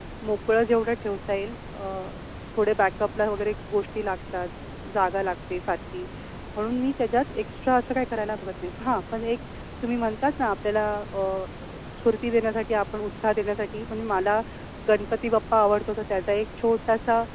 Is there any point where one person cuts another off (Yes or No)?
No